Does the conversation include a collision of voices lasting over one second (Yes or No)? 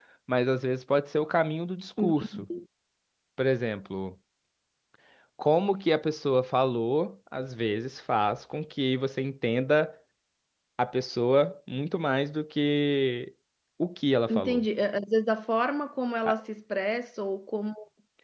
No